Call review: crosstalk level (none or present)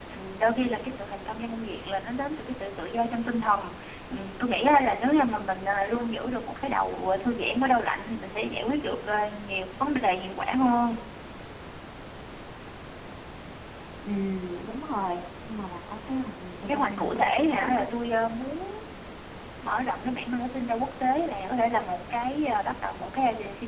present